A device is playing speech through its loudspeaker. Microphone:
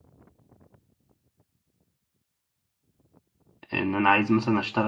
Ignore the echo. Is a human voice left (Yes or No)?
Yes